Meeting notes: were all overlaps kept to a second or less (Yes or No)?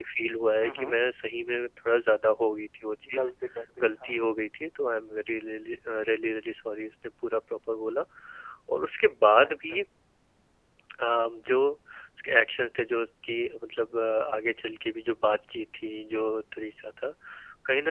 Yes